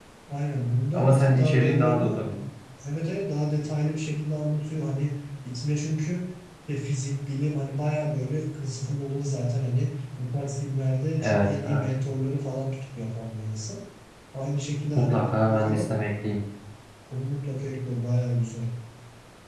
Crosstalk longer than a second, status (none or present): present